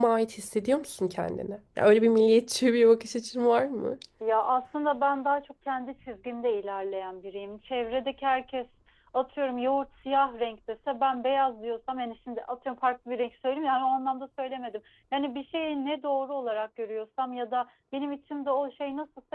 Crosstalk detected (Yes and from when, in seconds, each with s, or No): No